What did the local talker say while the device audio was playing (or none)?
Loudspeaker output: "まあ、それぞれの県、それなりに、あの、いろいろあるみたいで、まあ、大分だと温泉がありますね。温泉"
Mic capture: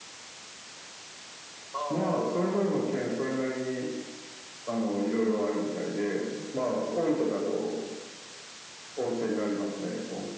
ああ、はいはいはい。